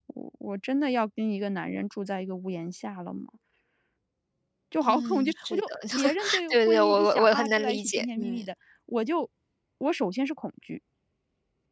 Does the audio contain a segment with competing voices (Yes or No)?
Yes